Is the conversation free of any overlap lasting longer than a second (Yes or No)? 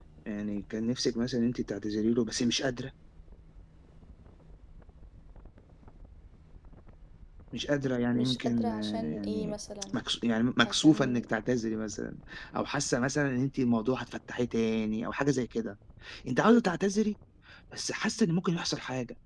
No